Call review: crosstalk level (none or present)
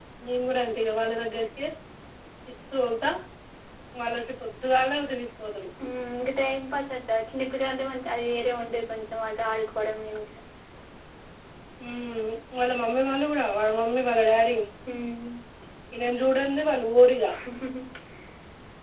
none